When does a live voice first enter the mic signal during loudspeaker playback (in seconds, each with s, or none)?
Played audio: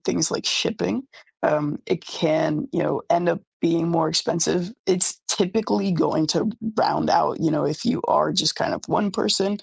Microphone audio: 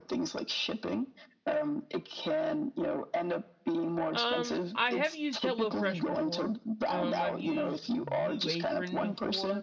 4.1 s